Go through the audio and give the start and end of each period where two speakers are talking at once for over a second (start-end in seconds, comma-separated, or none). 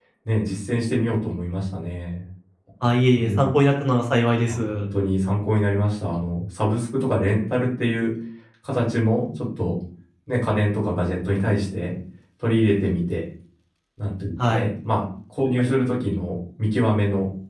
none